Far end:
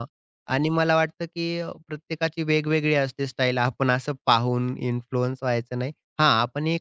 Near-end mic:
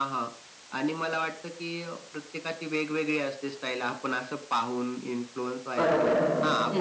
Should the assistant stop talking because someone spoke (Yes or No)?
Yes